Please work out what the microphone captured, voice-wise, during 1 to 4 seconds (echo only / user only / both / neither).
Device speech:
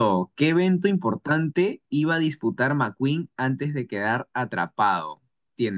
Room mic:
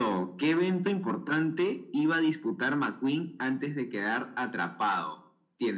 echo only